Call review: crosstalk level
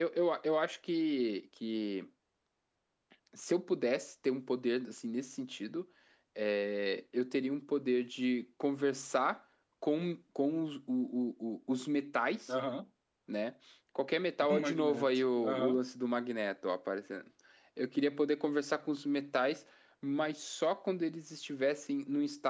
present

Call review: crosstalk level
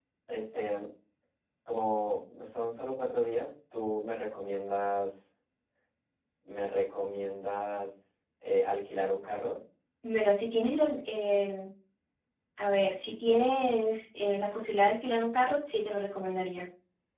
none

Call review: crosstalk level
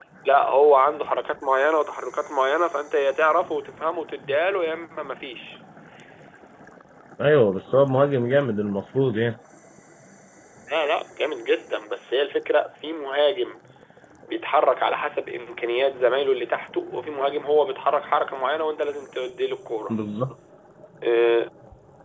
none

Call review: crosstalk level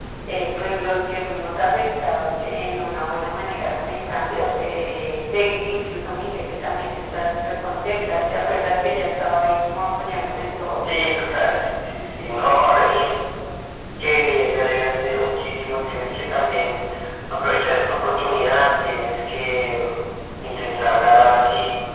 none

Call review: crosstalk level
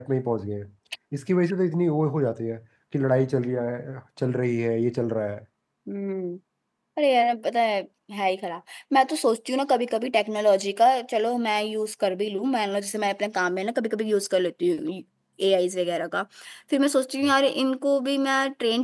none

